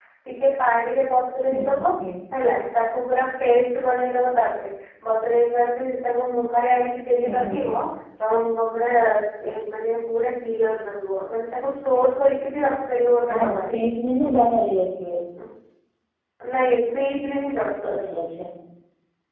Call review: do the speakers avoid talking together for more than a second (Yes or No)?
Yes